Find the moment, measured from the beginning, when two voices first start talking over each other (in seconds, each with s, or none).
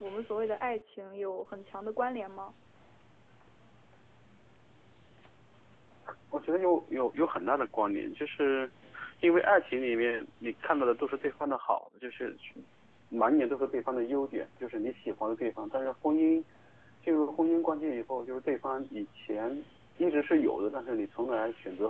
none